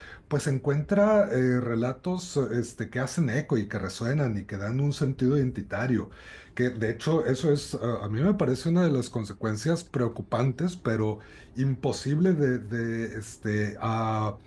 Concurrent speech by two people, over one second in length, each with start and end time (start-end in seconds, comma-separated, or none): none